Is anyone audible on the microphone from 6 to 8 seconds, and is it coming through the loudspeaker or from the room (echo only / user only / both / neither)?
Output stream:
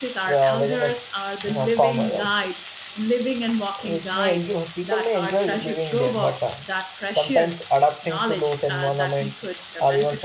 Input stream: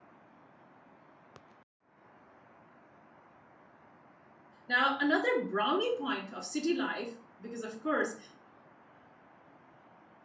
user only